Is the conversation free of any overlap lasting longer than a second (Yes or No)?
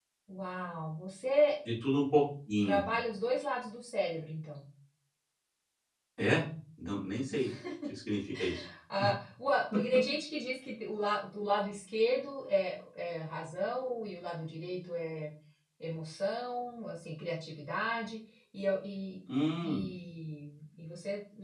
Yes